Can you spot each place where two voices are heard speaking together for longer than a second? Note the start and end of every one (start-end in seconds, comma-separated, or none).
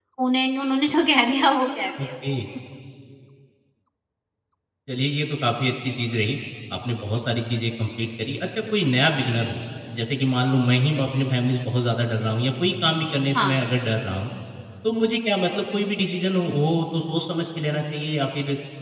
none